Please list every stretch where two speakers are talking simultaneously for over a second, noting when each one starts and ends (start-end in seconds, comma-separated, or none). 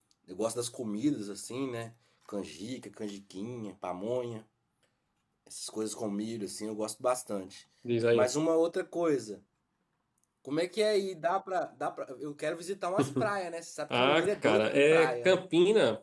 13.9-15.4